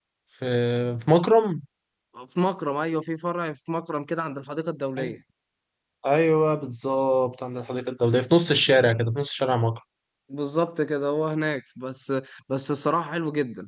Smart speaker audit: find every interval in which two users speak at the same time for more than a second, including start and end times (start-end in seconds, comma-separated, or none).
none